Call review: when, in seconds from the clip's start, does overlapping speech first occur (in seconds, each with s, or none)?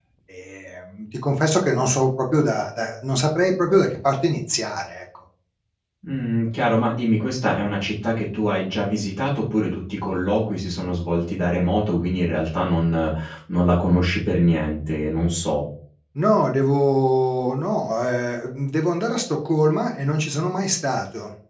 none